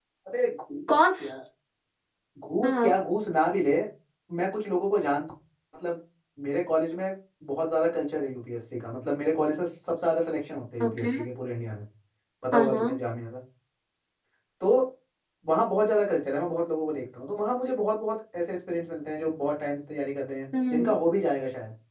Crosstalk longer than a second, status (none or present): none